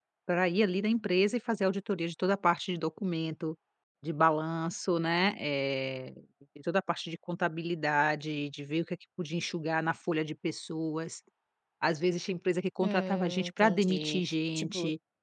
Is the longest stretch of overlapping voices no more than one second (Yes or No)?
No